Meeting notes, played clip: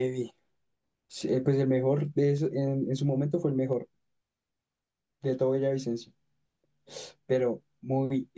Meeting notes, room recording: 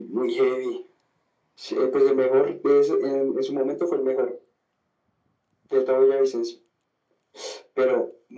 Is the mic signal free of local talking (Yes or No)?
Yes